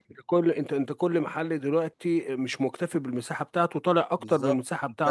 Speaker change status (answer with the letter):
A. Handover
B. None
A